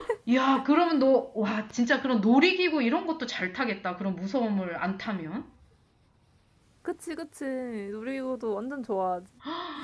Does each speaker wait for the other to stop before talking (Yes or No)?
Yes